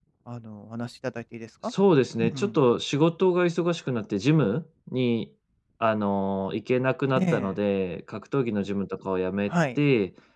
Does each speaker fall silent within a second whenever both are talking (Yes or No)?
Yes